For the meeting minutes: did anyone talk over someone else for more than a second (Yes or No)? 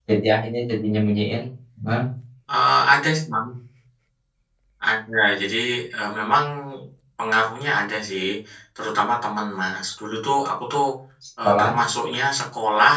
No